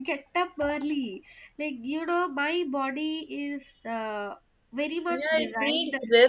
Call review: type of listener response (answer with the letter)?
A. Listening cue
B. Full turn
B